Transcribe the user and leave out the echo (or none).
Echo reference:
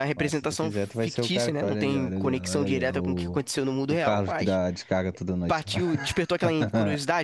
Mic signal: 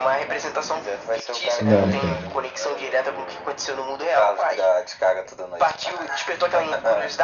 Não tem.